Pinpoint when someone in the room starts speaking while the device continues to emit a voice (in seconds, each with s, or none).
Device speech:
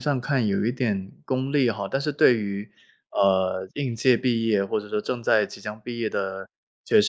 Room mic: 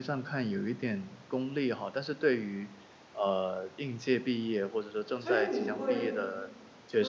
5.2 s